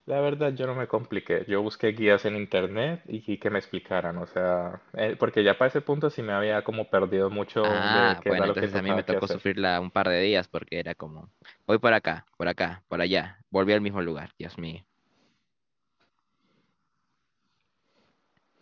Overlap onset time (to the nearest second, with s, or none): 8 s